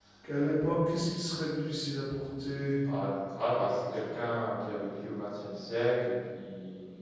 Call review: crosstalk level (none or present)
none